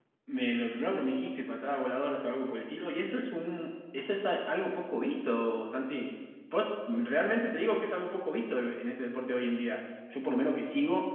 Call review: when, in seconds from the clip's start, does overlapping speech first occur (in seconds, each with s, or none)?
none